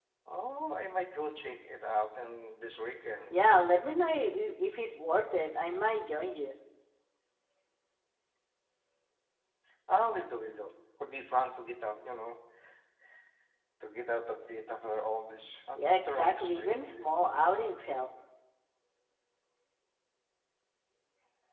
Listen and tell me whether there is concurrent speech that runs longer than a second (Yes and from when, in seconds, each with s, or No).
Yes, from 15.8 s